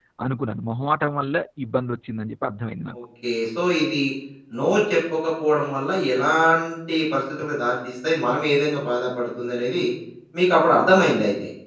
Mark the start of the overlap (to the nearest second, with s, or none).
none